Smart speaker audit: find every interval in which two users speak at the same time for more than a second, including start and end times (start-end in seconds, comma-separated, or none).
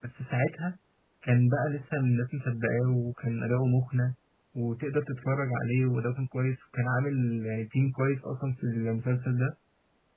none